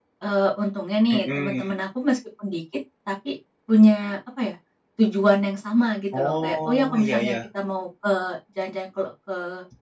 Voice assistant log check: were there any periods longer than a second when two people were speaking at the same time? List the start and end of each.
6.2-7.4

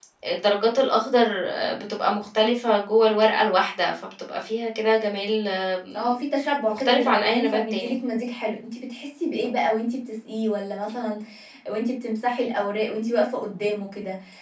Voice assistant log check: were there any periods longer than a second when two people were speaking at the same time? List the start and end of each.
6.7-8.0

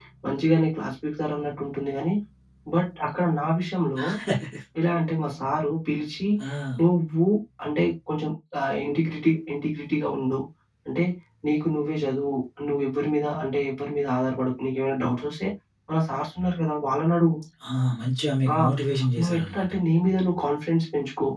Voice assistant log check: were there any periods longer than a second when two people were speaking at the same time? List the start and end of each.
none

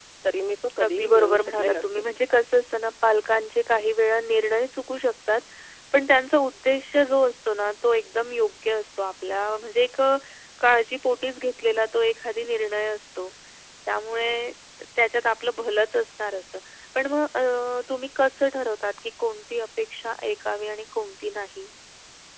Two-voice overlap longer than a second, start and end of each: 0.8-2.0

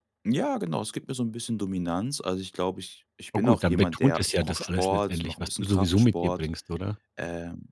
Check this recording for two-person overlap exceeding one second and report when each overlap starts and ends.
3.4-6.5

